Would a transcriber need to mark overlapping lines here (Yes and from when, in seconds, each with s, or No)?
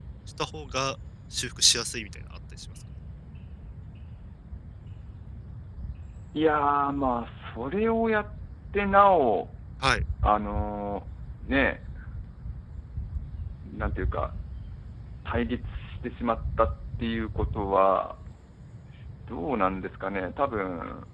No